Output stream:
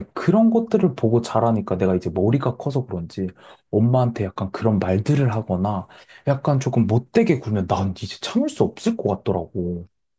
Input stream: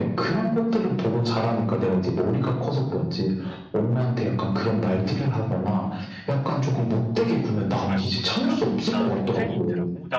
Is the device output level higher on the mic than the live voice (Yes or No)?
Yes